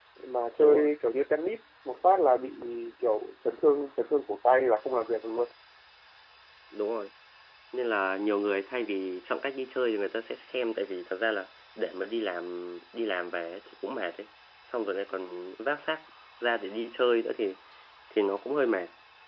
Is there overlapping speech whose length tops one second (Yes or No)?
No